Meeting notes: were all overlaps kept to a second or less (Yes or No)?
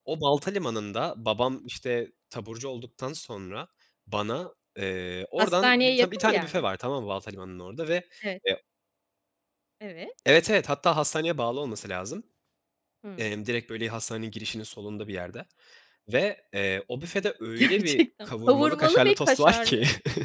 No